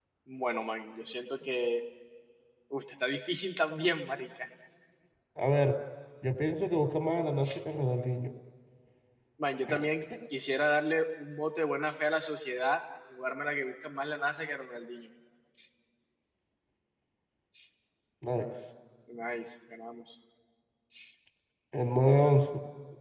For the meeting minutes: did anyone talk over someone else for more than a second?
No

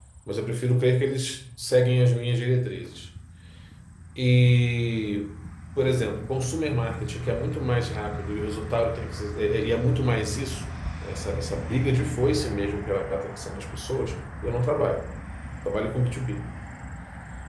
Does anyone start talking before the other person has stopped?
No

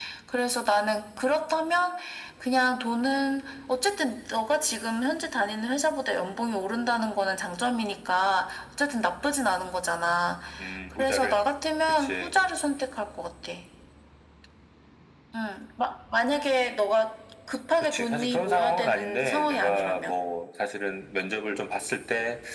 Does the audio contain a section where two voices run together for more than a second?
Yes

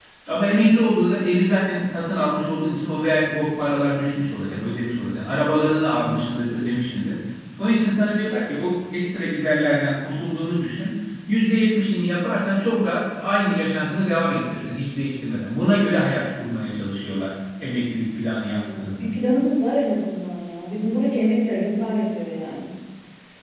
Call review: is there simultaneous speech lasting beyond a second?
No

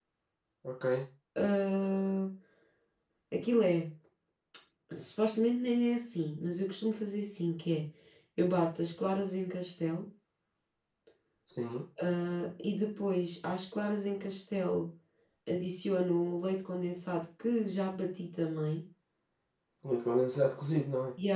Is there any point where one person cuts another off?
No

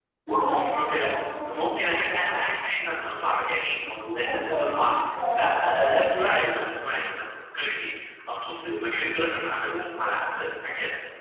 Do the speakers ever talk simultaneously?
Yes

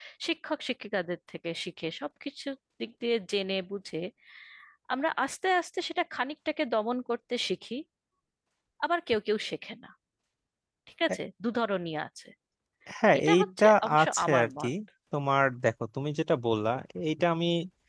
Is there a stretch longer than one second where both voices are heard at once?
Yes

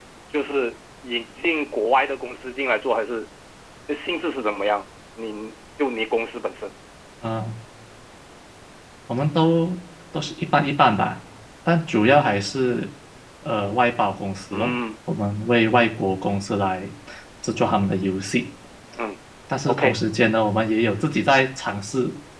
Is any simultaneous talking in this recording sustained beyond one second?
No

